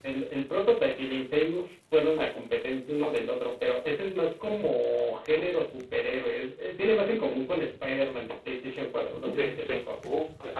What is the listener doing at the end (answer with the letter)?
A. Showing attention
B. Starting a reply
B